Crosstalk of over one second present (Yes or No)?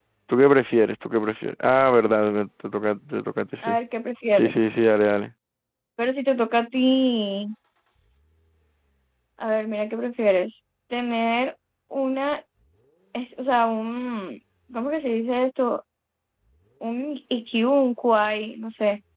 No